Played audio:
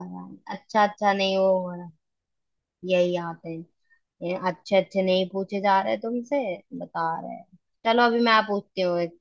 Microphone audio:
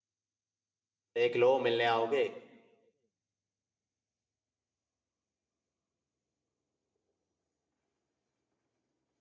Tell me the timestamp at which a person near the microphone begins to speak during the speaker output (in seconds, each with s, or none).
1.1 s